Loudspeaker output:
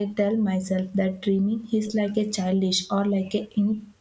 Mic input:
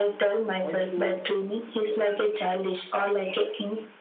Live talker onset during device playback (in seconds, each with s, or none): 0.6 s